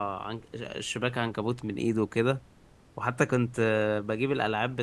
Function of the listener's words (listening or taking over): listening